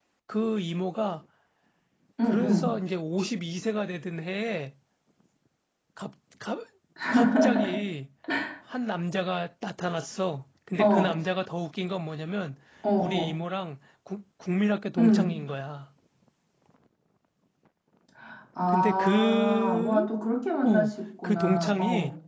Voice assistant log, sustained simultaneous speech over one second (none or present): present